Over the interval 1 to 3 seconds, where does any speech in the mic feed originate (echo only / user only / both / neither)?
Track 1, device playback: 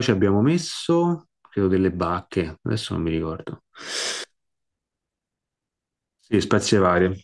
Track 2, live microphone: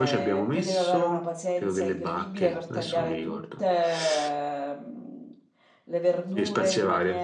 both